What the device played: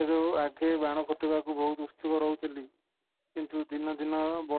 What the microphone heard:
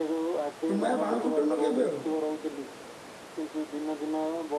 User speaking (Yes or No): Yes